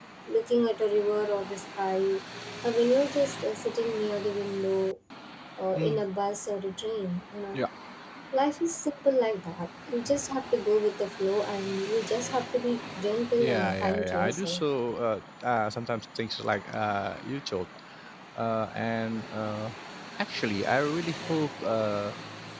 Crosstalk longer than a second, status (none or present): present